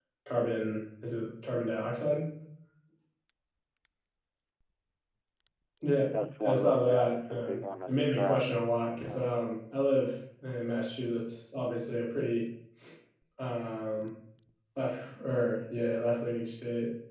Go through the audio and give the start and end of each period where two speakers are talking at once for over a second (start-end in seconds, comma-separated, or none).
6.4-8.6